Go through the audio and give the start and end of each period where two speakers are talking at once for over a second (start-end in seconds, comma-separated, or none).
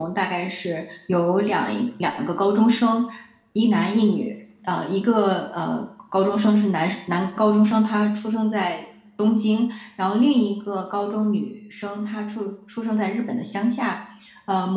none